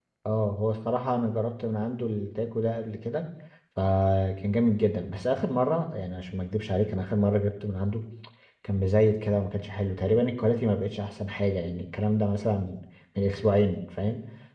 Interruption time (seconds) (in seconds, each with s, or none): none